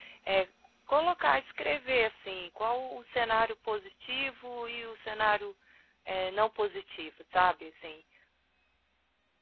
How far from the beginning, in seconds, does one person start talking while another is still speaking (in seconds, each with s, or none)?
none